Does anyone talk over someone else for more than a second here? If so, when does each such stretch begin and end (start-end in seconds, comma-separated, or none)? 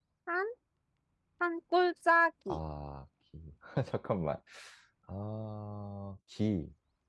none